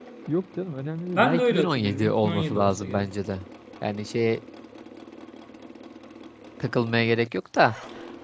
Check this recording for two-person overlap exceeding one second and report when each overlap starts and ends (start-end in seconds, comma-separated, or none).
1.1-3.1